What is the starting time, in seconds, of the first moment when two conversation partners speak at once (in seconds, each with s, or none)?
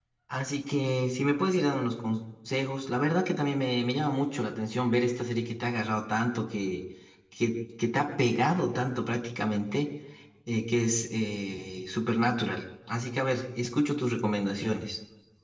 none